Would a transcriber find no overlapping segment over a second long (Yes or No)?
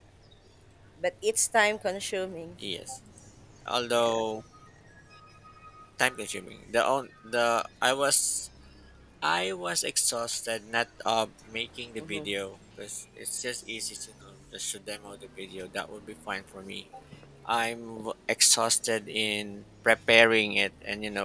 Yes